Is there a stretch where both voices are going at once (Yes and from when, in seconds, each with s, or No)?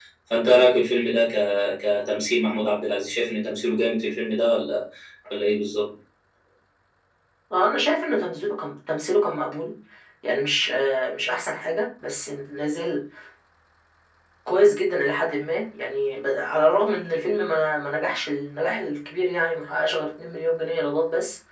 No